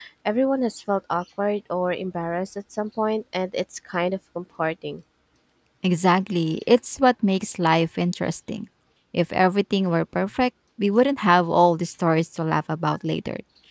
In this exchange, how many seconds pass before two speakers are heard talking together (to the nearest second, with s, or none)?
none